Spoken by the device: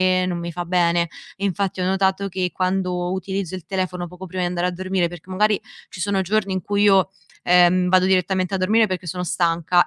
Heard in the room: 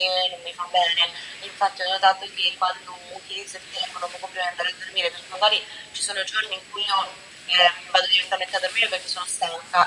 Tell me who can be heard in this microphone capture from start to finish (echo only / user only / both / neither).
echo only